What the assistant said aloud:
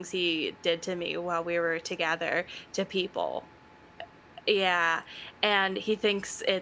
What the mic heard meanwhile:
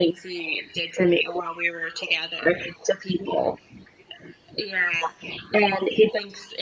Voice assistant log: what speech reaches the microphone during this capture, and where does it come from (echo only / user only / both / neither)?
echo only